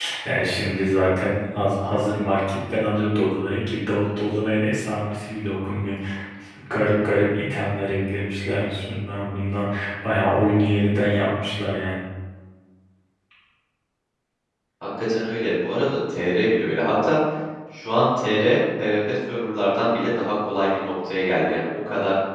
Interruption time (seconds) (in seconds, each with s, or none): none